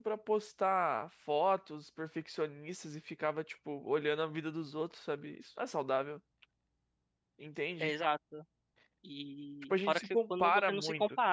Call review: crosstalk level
present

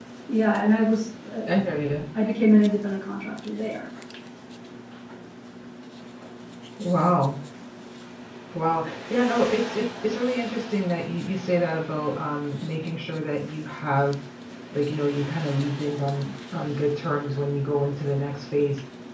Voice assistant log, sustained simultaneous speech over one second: none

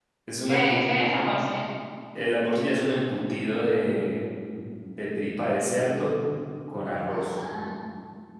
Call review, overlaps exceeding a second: none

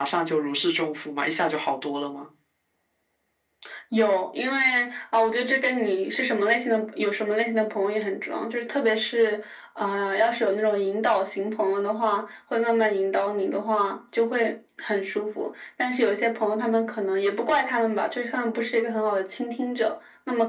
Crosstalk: none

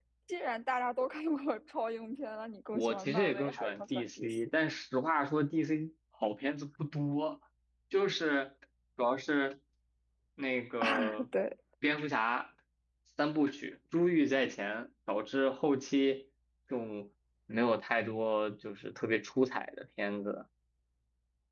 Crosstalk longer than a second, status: present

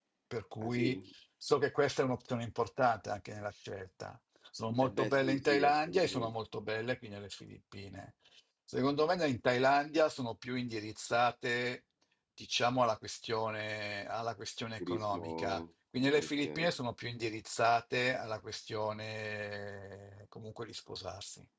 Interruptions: present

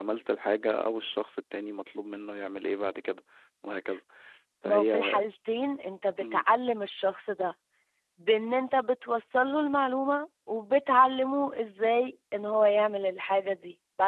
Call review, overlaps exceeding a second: none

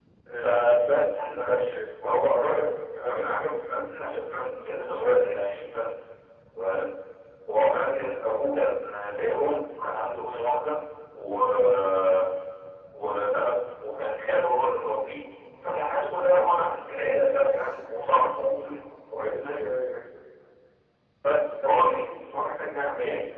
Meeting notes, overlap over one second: none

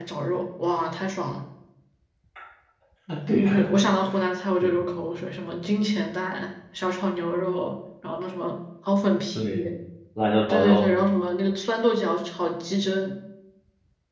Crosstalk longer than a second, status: none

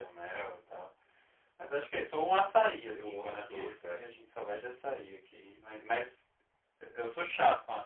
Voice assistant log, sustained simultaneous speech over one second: present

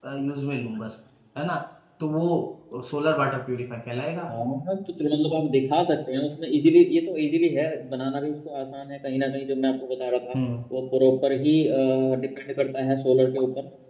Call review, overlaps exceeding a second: none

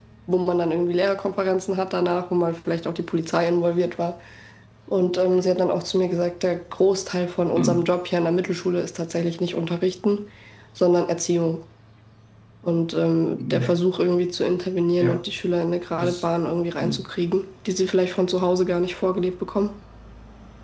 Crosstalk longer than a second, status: none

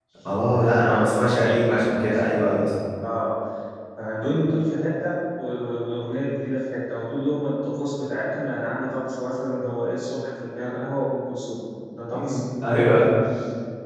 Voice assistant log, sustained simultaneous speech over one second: present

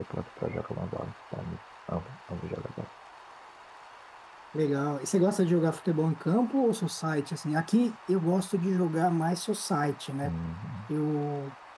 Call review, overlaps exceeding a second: none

